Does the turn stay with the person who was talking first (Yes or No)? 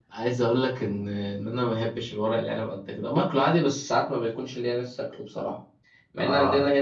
Yes